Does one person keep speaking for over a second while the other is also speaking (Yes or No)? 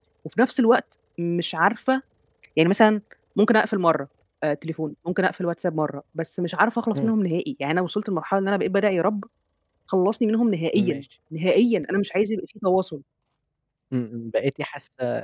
No